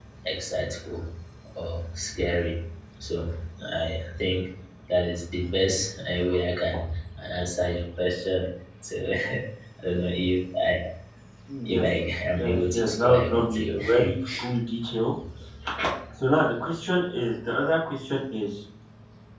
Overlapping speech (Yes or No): Yes